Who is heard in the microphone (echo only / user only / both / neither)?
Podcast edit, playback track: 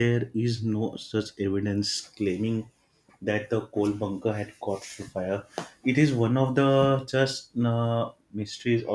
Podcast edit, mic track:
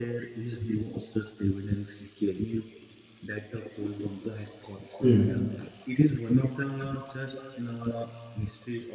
both